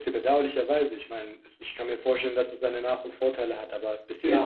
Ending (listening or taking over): taking over